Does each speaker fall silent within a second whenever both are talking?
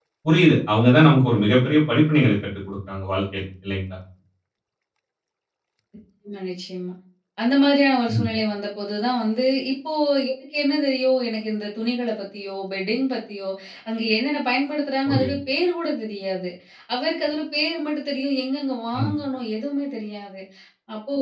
Yes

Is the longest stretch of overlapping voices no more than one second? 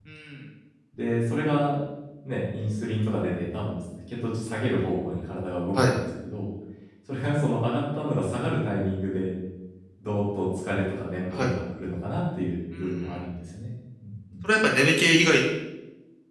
Yes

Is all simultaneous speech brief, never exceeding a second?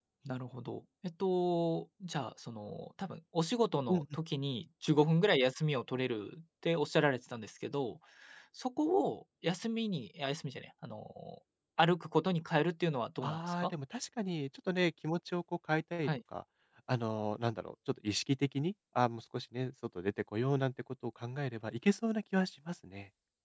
Yes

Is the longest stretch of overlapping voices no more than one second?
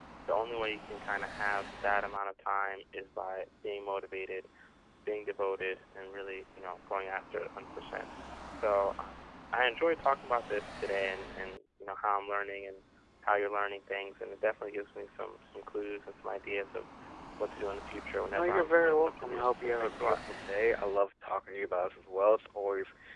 No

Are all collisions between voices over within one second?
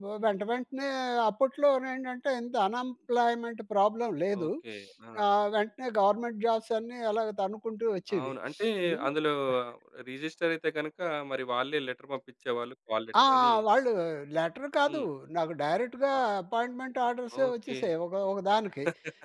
Yes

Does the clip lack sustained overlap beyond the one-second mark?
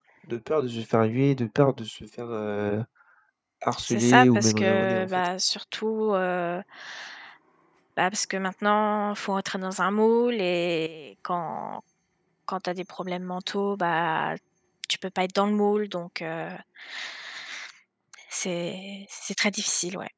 No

